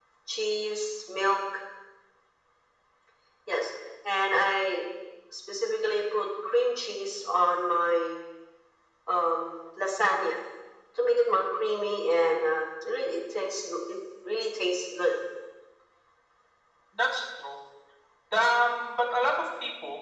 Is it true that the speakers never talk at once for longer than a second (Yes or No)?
Yes